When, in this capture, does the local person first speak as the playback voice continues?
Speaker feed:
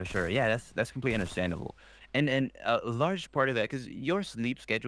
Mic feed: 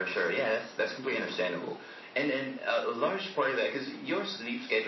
none

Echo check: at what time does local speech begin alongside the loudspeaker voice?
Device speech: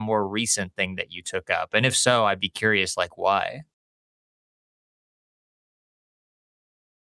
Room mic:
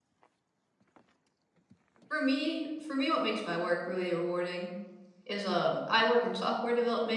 2.1 s

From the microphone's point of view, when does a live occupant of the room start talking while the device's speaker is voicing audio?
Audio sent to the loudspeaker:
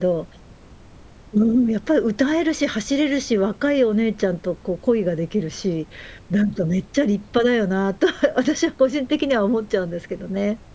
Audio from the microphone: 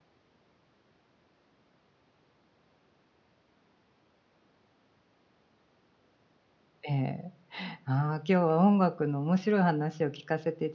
6.8 s

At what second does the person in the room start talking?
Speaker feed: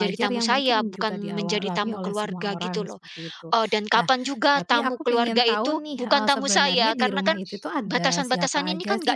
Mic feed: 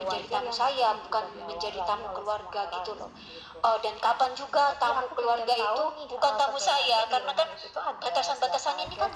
none

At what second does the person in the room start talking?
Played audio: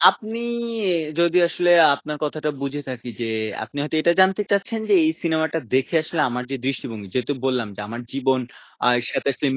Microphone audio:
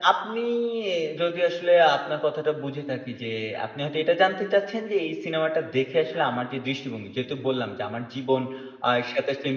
none

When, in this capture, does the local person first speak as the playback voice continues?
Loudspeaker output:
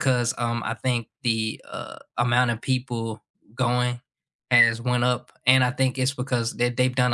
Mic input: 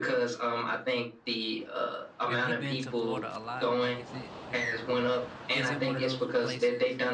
2.3 s

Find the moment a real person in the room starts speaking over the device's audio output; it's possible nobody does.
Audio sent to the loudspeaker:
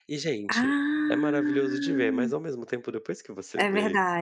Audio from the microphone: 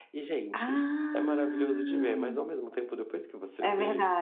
none

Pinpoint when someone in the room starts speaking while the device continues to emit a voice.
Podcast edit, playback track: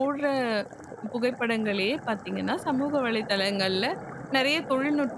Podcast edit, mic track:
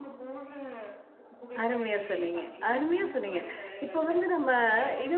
1.6 s

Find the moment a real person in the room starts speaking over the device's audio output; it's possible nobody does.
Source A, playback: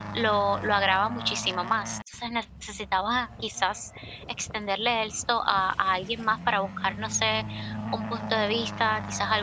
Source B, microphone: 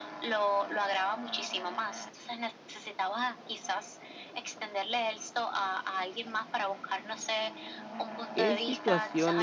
8.3 s

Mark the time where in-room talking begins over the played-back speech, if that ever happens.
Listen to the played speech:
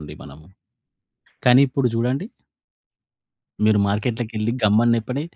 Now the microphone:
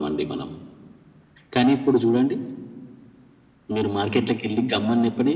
none

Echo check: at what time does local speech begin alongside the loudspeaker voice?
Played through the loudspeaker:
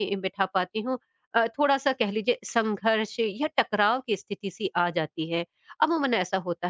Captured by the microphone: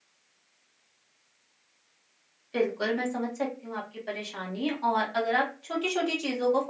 2.5 s

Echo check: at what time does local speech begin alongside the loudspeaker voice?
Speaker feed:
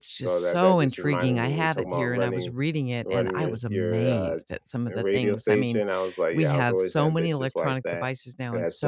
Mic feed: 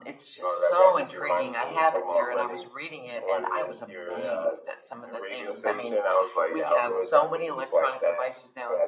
none

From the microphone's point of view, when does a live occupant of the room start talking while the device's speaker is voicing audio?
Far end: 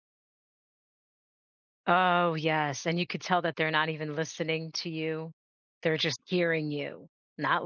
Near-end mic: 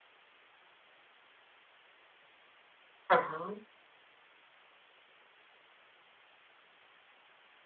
3.1 s

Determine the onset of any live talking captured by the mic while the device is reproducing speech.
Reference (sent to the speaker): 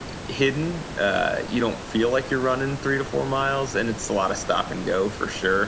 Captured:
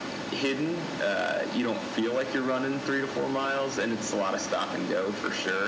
none

